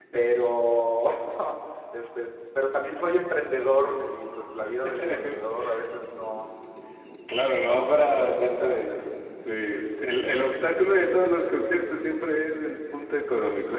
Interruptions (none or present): present